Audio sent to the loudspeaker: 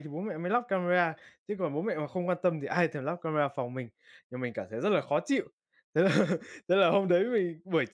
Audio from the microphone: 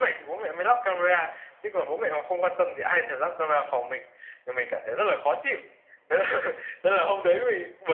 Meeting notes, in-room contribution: none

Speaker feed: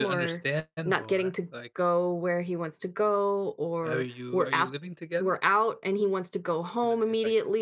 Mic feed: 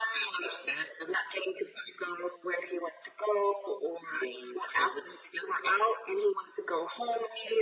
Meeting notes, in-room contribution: none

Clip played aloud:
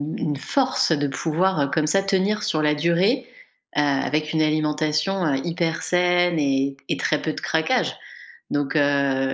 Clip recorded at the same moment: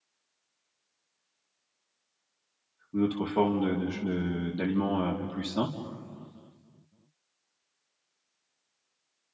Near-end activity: present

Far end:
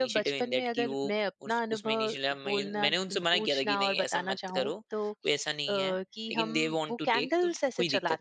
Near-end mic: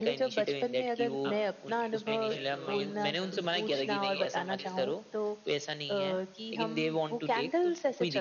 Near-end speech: present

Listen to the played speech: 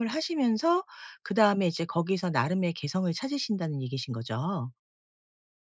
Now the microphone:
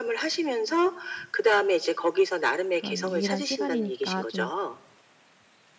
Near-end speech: present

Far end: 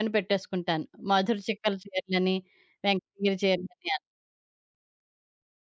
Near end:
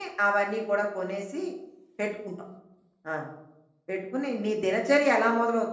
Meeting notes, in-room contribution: present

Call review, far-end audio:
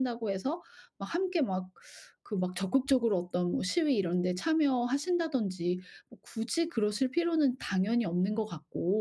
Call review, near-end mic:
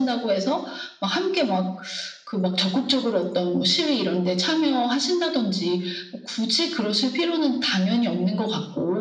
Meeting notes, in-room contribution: none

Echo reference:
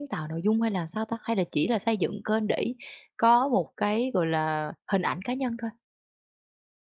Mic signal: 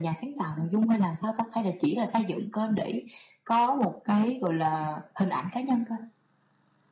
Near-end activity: none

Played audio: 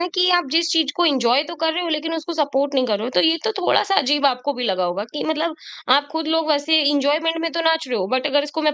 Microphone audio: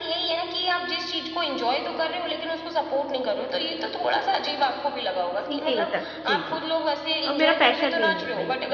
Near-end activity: present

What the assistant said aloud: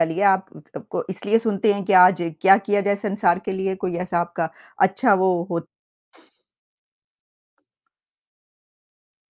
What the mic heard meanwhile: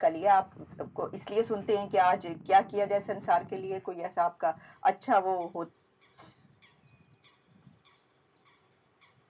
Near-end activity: none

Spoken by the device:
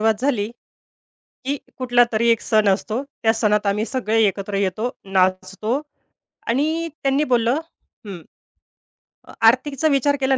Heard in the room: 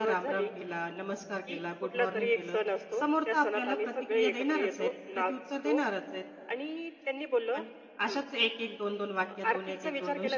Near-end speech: present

